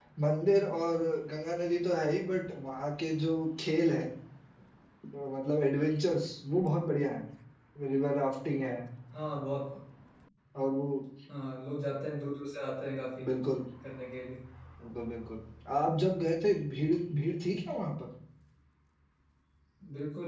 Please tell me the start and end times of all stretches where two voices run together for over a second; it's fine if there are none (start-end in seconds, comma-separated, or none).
none